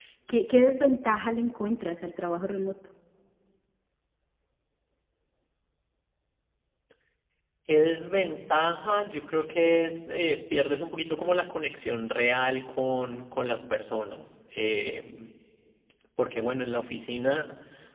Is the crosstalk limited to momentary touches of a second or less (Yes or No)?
Yes